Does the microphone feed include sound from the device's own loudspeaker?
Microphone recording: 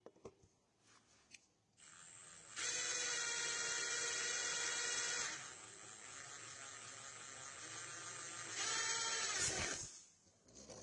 No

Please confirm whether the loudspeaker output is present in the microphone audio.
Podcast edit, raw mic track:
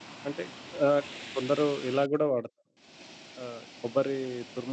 No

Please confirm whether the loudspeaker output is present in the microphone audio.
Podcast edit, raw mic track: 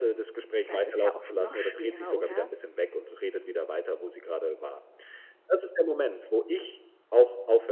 Yes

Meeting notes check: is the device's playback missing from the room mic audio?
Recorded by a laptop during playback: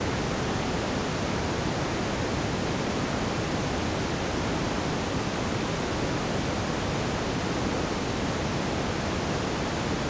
Yes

